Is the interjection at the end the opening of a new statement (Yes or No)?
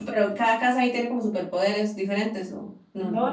Yes